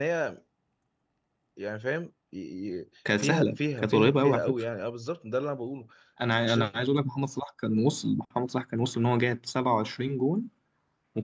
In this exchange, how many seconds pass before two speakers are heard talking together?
3.2 s

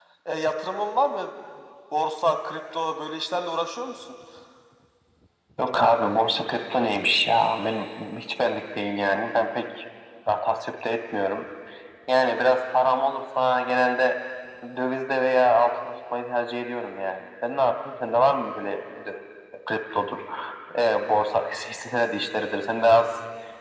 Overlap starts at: none

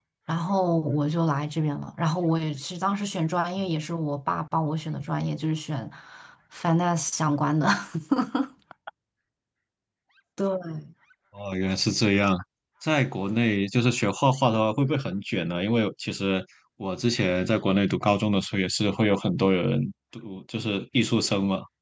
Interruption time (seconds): none

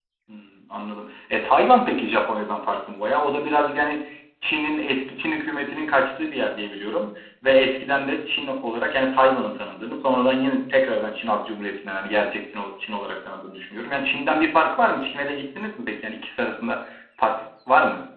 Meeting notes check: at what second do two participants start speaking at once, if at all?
none

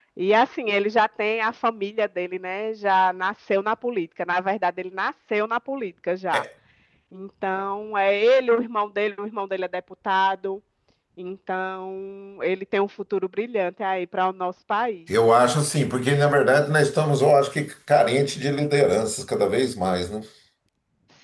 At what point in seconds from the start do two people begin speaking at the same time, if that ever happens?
none

